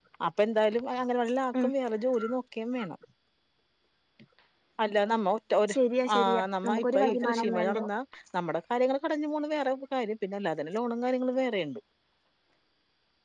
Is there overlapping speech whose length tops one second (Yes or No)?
Yes